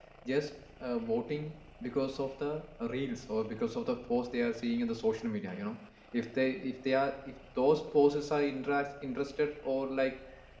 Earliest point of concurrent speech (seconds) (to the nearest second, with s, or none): none